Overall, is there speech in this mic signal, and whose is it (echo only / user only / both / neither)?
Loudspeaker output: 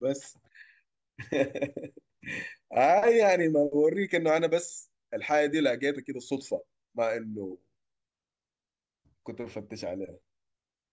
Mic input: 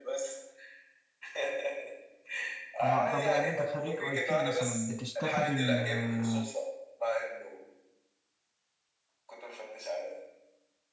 both